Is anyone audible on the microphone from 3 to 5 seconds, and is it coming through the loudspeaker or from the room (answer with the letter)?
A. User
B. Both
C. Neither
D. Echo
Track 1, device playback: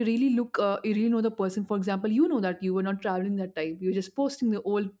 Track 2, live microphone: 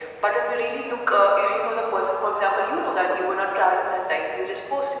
D